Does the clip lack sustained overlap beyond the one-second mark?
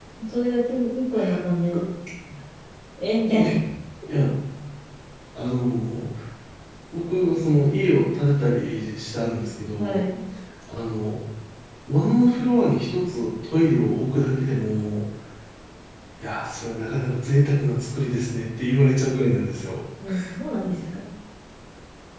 Yes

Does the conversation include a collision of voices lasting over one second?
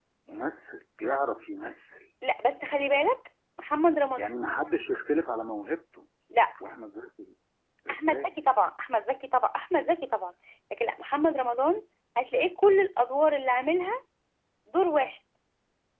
No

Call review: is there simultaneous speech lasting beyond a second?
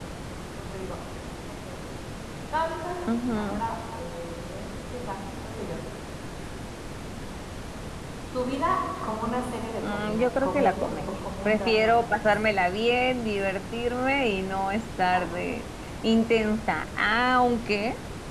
Yes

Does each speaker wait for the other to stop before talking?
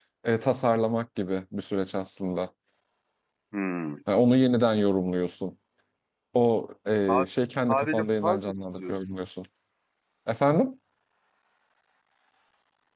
No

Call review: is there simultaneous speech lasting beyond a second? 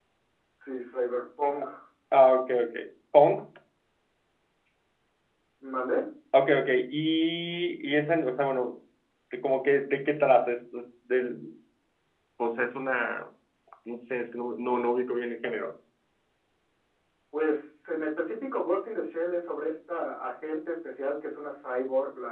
No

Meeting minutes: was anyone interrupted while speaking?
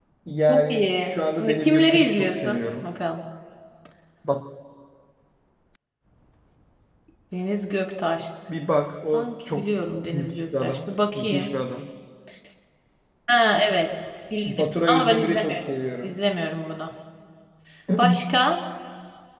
Yes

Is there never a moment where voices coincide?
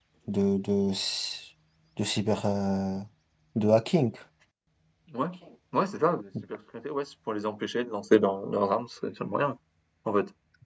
Yes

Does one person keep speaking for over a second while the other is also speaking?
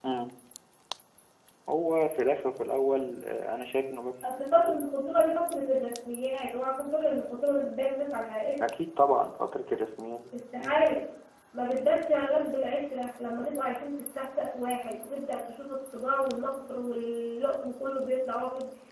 No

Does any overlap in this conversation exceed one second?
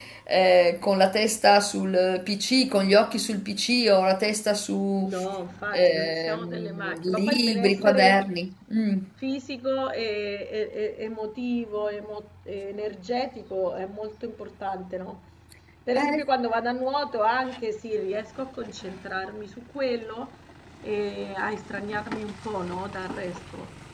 Yes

